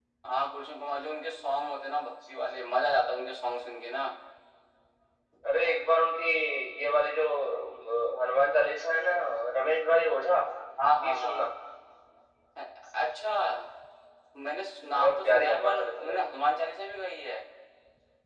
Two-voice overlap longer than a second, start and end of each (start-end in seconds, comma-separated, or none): 15.0-16.2